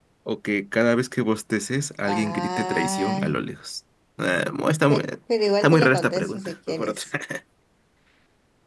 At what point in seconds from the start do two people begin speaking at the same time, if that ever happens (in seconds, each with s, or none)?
2.1 s